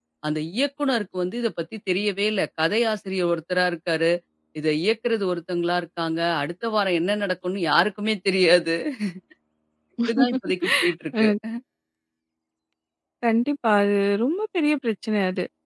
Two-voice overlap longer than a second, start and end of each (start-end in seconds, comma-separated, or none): none